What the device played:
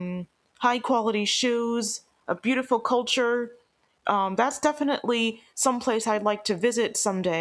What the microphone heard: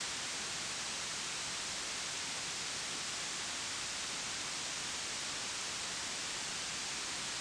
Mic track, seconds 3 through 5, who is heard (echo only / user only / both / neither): neither